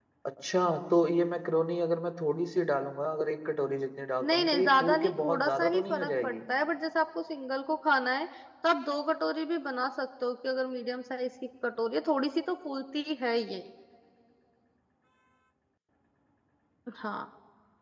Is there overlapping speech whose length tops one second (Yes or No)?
Yes